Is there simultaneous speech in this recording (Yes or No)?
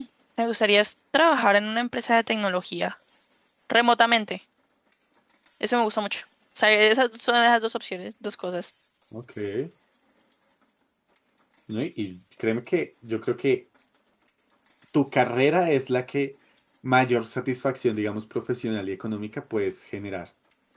No